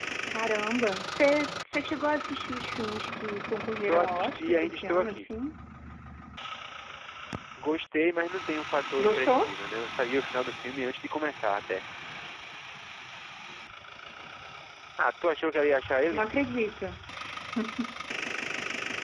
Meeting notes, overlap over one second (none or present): present